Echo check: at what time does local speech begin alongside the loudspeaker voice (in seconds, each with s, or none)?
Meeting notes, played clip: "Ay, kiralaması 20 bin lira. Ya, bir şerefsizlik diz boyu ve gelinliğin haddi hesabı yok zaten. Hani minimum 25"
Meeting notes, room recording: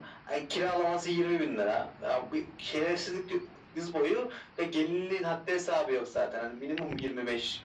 none